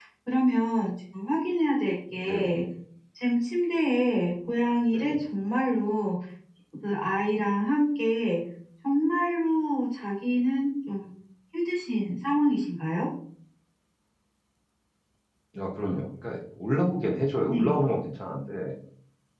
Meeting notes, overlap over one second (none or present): none